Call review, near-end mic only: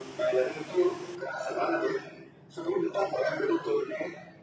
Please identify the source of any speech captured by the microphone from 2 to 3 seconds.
echo only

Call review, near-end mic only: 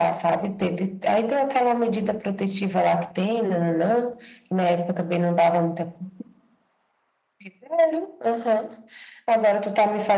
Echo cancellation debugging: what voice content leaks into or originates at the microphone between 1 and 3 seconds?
echo only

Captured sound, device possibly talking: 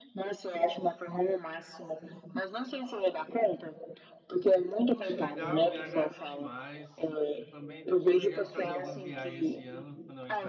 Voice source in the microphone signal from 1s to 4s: echo only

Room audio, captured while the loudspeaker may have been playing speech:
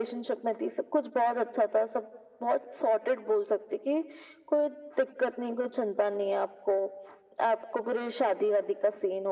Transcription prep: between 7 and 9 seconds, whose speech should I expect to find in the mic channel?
echo only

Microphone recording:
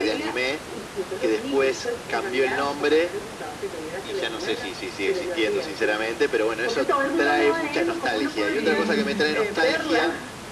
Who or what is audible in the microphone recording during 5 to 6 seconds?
echo only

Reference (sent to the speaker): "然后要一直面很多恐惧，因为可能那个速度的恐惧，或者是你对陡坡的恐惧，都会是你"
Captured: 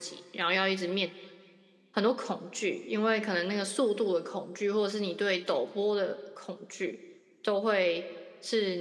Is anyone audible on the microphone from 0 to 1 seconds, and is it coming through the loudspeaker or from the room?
echo only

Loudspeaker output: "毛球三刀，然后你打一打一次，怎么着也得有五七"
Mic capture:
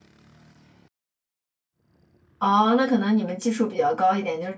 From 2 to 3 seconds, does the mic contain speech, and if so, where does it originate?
user only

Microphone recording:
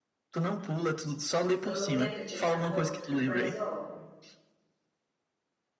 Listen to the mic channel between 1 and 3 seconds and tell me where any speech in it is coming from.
both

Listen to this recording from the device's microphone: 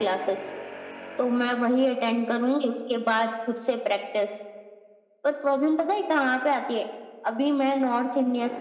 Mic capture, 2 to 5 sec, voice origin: echo only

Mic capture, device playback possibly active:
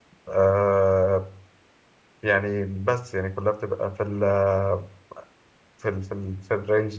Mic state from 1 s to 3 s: user only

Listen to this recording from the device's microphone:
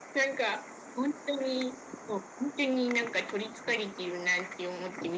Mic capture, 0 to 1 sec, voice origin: echo only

